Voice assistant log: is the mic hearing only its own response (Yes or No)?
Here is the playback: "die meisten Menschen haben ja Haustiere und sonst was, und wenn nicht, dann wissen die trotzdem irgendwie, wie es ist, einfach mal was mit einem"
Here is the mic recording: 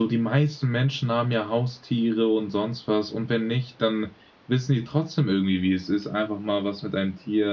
Yes